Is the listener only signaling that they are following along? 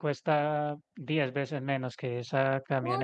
No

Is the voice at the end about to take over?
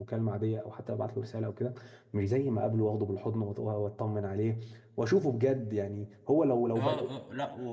Yes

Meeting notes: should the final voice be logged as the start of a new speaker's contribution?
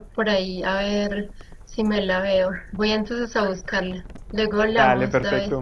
Yes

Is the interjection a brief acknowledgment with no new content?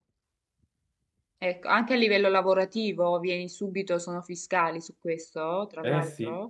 No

